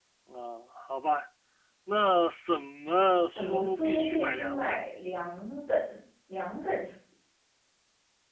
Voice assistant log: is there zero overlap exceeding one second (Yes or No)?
No